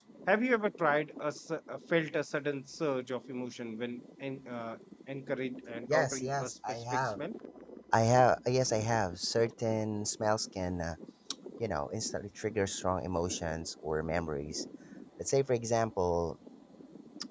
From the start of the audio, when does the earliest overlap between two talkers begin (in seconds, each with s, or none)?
5.9 s